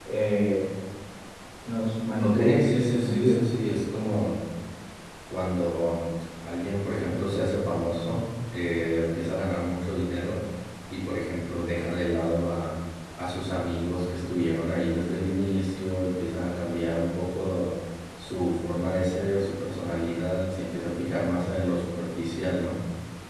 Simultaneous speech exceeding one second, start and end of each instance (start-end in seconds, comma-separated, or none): 2.2-3.4